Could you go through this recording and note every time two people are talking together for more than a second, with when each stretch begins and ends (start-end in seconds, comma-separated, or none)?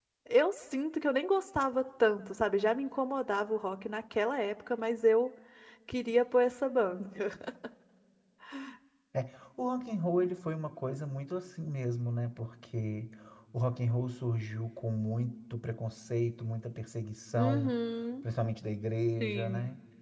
none